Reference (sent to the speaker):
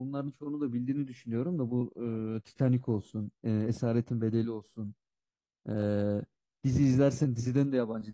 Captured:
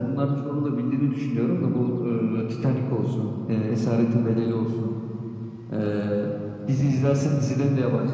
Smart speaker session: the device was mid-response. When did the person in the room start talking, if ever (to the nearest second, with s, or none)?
none